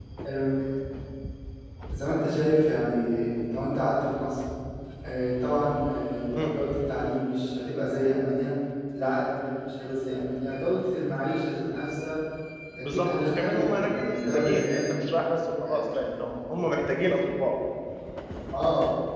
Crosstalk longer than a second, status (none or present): present